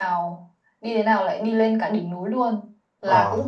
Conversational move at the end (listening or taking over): listening